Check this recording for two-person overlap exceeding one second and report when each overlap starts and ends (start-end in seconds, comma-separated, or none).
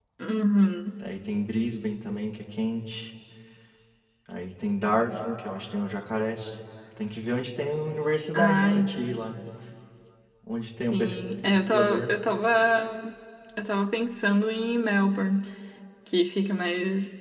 10.9-12.1